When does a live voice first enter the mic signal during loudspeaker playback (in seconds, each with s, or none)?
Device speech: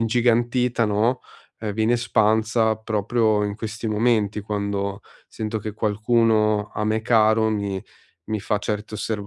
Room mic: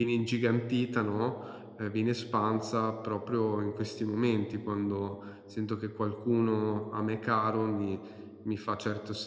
none